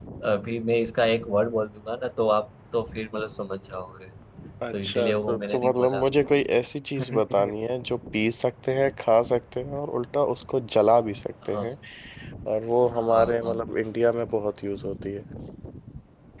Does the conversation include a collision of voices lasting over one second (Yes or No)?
Yes